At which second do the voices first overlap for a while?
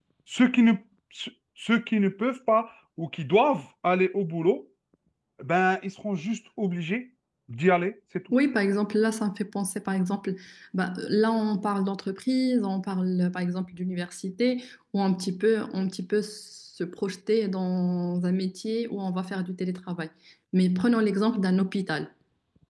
none

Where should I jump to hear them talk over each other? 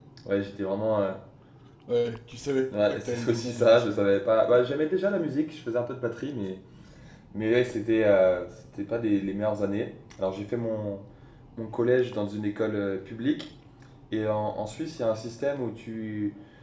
2.7 s

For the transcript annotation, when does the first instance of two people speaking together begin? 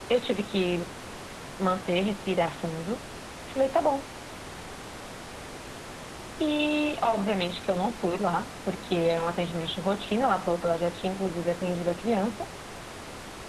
none

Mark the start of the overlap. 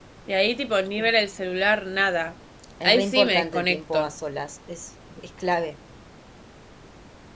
2.8 s

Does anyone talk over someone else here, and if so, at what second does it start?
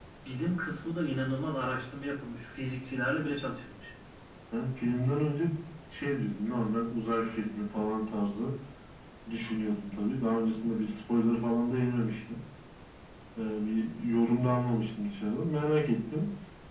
none

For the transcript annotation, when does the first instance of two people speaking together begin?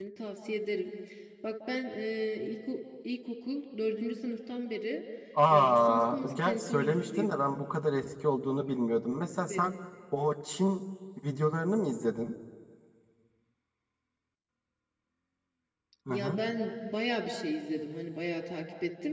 5.5 s

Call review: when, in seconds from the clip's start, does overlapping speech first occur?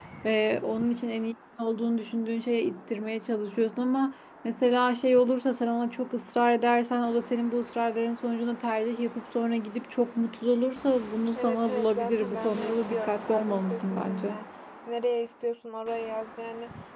11.3 s

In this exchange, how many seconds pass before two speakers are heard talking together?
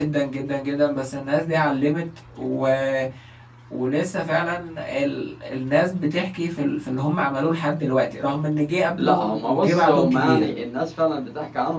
9.0 s

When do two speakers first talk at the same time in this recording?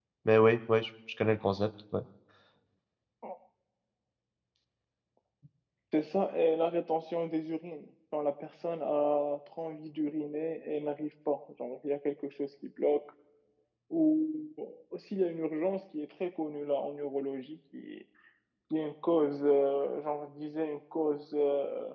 none

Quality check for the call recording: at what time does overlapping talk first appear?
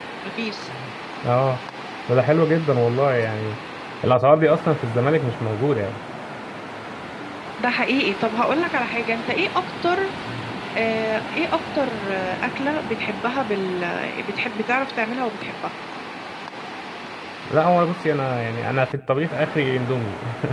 none

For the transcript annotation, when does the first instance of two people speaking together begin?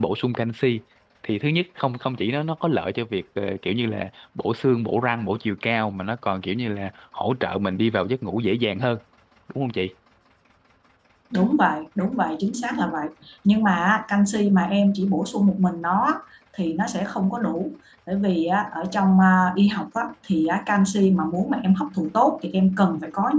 none

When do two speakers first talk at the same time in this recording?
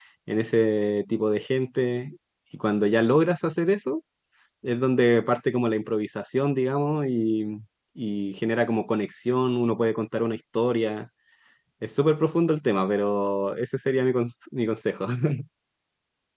none

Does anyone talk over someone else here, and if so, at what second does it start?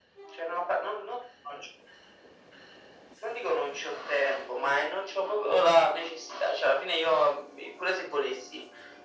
none

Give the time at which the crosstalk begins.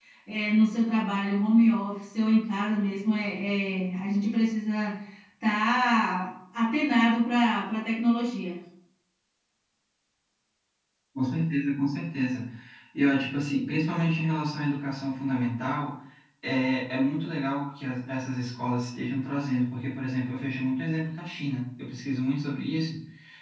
none

